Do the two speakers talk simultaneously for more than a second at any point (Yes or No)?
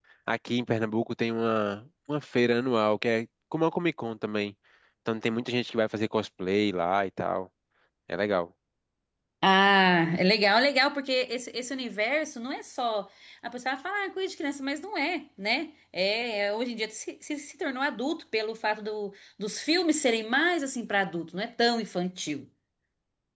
No